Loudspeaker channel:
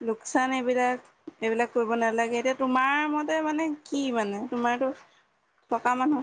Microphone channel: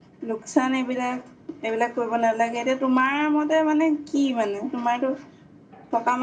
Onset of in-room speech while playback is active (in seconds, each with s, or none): none